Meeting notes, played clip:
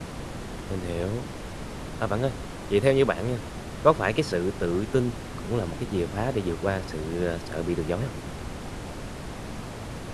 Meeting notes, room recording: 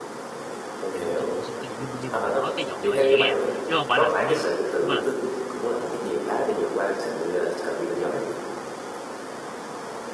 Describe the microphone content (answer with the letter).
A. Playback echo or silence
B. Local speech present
B